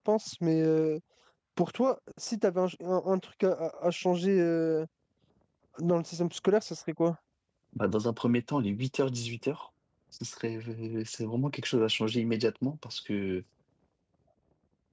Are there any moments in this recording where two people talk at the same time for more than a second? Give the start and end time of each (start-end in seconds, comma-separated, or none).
none